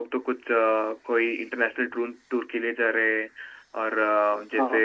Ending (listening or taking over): listening